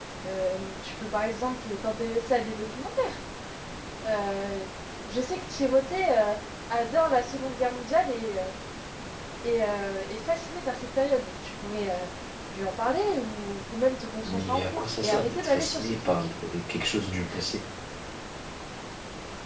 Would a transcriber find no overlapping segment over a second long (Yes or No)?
No